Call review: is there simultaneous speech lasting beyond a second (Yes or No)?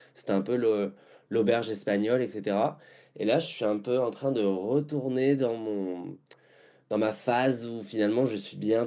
No